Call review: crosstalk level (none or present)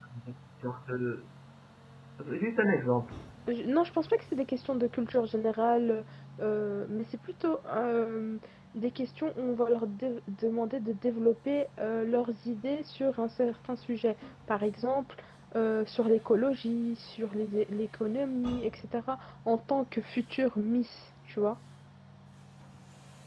none